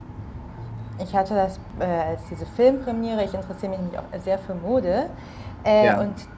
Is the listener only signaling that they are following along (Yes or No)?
Yes